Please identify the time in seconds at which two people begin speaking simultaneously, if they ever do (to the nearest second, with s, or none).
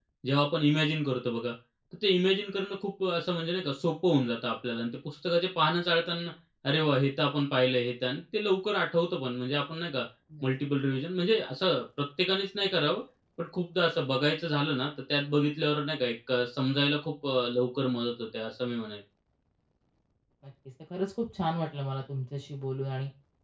none